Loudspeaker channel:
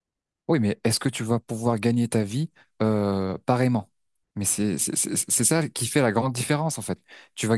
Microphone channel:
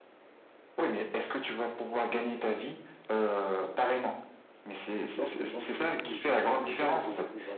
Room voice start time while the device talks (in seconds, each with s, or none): 5.1 s